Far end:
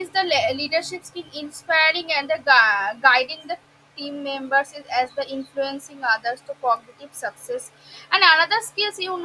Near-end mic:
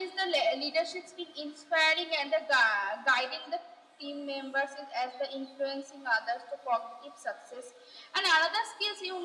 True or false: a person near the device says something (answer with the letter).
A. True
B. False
B